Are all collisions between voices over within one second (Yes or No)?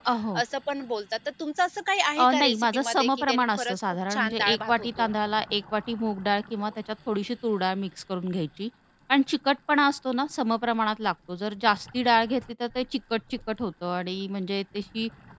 No